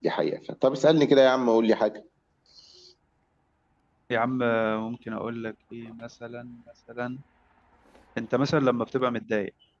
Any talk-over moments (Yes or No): No